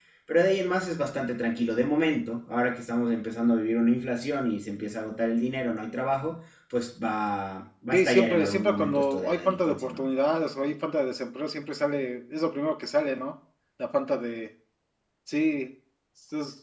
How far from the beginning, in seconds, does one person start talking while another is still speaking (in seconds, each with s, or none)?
7.9 s